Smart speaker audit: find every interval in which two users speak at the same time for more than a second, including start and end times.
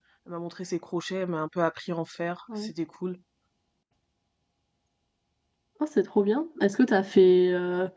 none

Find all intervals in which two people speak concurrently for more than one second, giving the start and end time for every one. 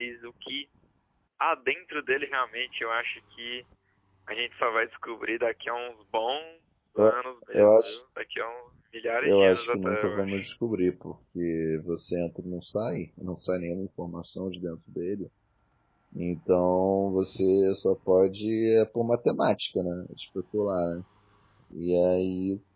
9.2-10.5

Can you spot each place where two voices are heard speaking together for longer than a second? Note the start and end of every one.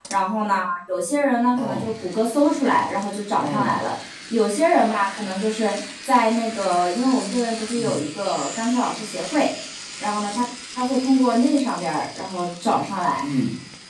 none

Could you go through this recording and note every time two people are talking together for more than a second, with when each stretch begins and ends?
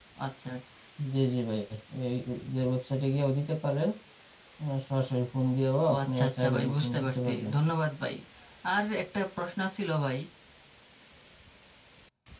5.9-7.5

